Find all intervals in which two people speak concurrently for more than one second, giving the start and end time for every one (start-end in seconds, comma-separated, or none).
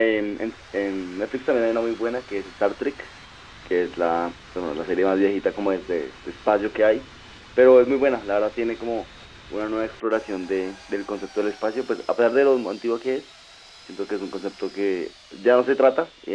none